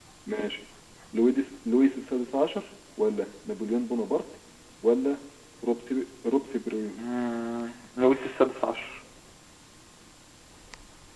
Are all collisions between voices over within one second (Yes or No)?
Yes